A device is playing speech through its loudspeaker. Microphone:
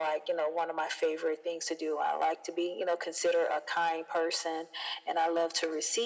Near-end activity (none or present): none